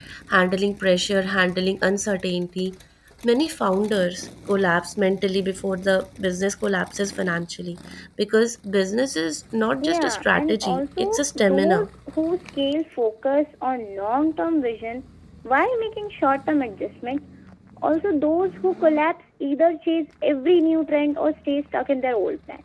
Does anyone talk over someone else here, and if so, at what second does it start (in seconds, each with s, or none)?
9.8 s